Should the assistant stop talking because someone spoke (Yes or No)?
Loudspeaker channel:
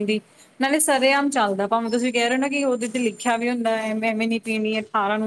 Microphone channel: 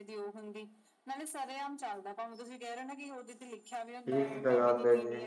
Yes